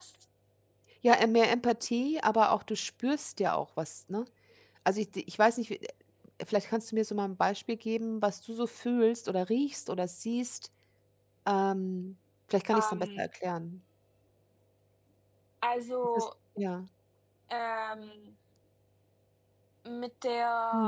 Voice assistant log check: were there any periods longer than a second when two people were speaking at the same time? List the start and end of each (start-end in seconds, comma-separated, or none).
none